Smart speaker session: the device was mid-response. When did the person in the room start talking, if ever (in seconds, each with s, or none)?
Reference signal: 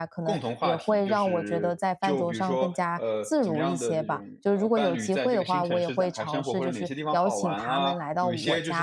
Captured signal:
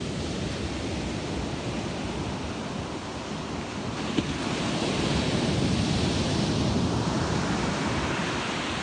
none